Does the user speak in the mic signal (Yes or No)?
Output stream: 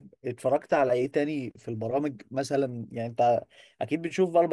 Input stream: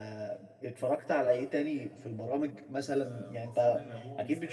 Yes